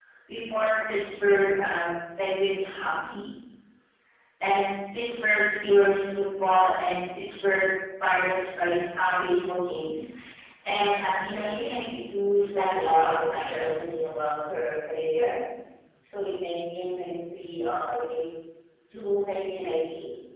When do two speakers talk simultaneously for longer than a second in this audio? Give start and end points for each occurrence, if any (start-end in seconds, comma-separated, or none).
12.3-14.1